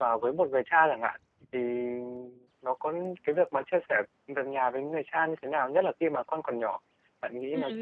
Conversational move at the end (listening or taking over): taking over